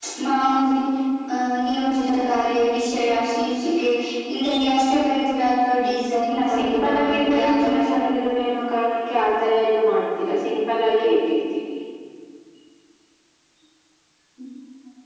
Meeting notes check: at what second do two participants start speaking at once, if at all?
6.1 s

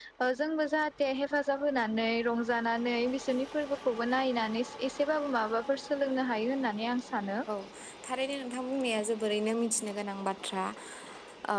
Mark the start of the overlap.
none

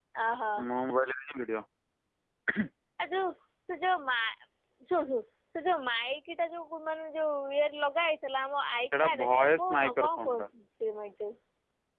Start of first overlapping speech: 8.9 s

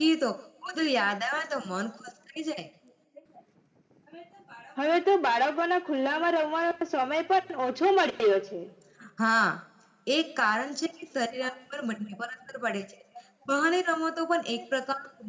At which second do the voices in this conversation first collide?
none

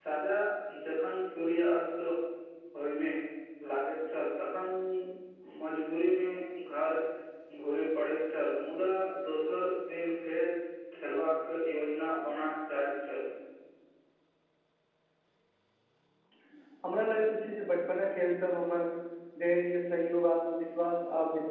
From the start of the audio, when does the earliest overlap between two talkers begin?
none

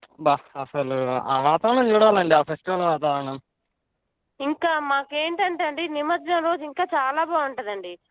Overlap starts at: none

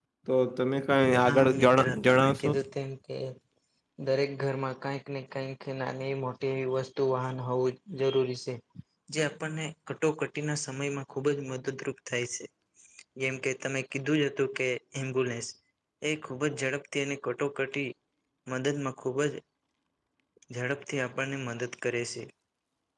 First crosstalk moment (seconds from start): 1.3 s

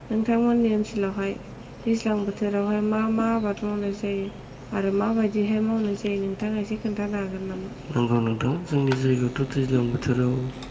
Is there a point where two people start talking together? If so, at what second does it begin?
none

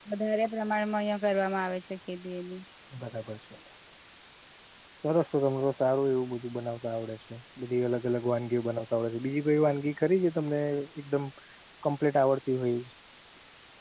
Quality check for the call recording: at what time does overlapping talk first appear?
none

